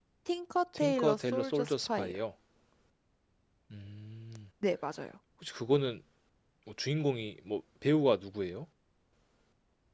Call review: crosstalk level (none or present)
present